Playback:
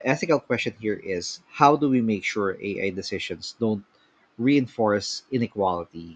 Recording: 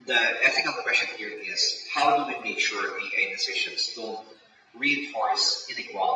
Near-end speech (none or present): none